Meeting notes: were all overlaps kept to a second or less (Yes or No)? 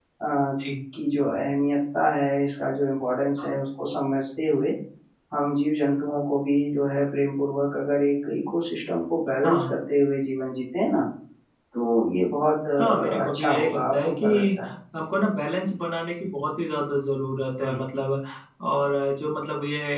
No